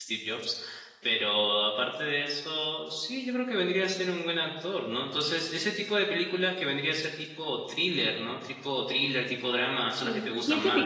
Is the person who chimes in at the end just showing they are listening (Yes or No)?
No